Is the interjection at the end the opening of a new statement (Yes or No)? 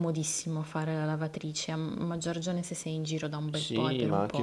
Yes